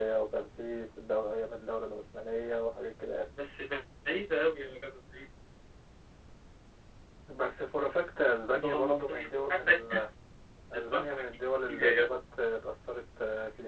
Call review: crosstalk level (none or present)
present